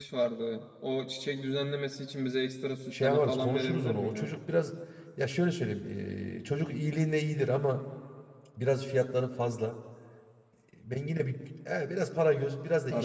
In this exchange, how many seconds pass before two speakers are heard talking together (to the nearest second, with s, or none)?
3 s